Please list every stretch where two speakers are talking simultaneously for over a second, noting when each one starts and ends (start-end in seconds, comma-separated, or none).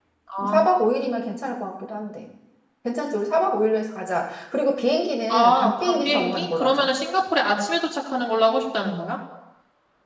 5.3-6.9